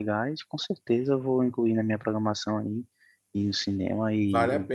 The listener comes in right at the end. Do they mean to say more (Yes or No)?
Yes